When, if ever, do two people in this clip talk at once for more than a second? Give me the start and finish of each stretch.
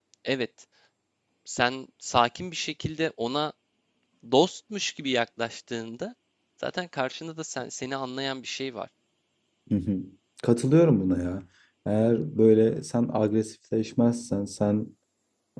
none

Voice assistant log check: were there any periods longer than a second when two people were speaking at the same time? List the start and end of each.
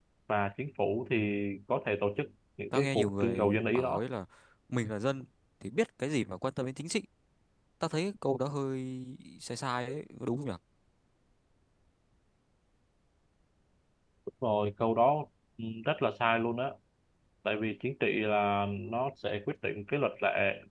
2.7-4.0

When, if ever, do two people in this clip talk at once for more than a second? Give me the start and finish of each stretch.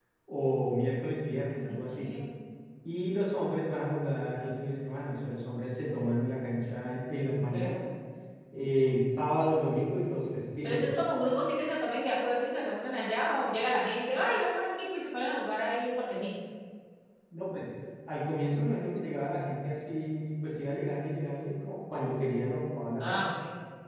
none

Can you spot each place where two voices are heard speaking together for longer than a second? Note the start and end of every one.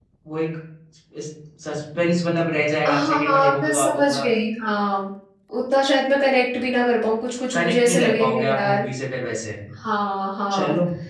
2.9-4.2, 7.5-8.8

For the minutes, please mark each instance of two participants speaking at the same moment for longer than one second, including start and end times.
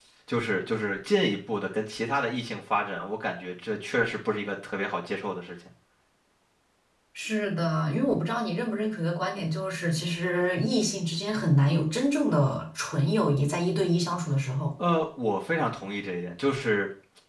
none

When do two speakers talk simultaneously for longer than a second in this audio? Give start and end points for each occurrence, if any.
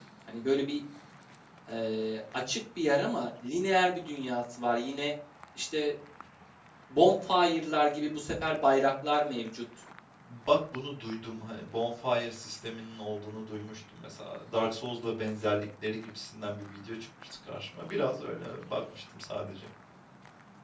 none

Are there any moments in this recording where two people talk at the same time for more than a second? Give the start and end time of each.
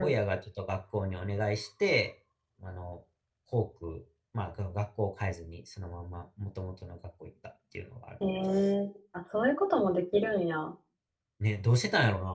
none

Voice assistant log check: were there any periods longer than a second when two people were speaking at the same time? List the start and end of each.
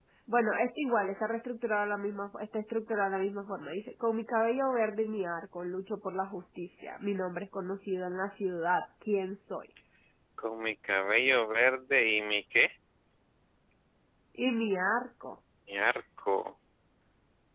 none

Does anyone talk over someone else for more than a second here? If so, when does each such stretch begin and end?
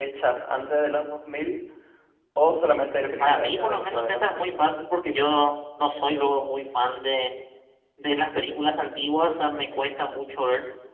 3.2-4.6

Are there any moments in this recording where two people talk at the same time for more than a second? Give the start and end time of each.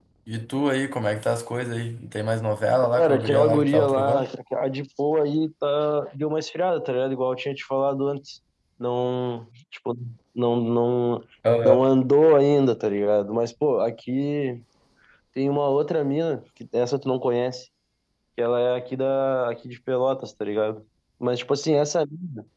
3.0-4.2

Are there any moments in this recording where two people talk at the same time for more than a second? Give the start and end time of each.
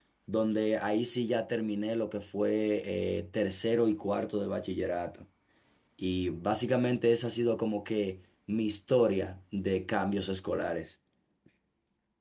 none

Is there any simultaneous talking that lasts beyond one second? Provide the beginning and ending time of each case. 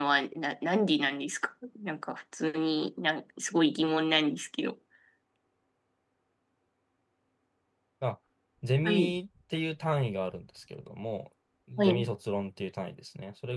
none

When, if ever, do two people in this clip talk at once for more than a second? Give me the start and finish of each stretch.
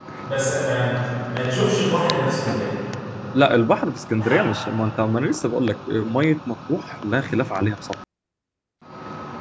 none

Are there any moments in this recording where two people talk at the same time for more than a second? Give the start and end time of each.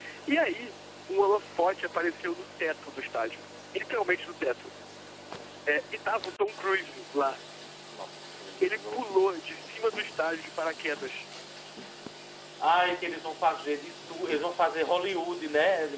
none

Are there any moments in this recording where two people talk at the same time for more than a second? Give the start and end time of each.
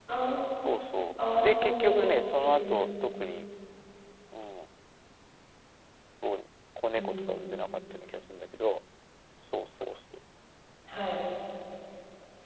1.4-3.2

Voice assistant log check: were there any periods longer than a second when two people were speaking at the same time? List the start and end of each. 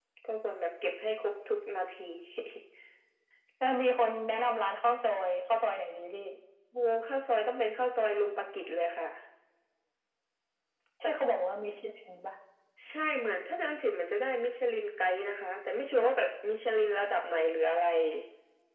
none

